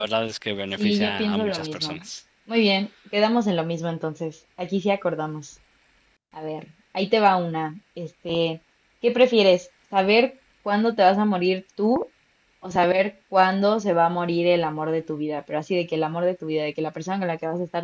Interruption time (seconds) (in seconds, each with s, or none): 0.8 s